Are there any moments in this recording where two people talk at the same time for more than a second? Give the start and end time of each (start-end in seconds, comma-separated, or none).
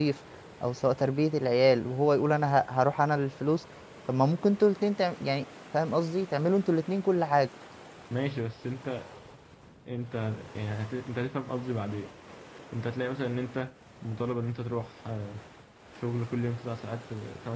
none